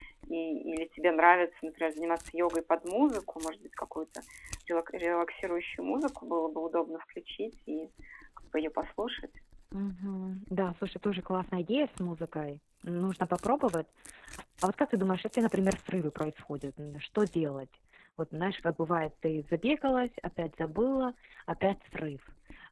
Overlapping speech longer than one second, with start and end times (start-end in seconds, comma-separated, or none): none